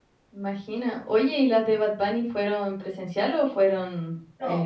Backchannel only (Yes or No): No